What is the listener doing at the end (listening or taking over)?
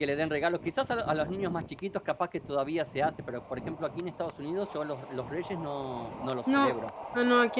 taking over